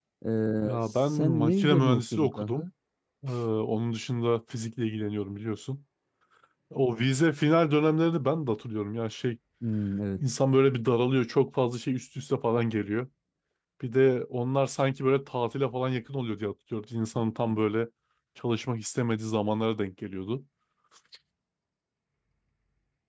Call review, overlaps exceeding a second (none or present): present